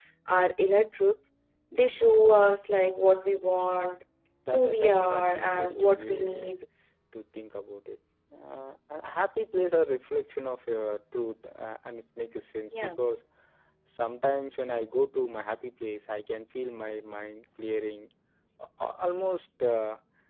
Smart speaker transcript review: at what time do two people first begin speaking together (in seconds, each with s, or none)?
4.5 s